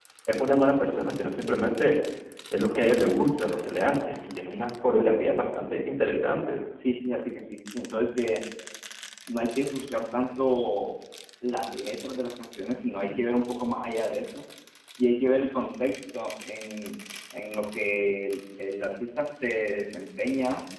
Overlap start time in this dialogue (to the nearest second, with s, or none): none